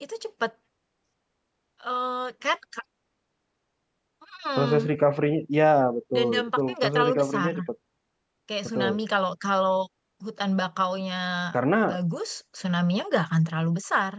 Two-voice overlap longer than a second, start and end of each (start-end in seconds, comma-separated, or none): 6.1-7.5